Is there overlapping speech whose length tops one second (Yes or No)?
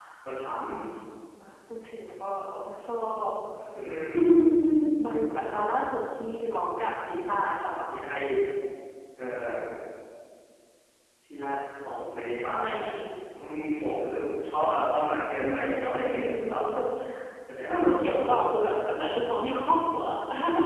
Yes